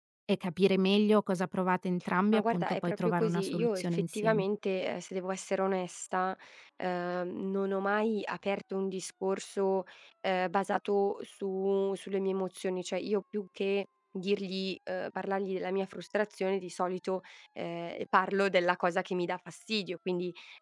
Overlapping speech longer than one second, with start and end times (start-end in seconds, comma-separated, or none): 2.3-4.4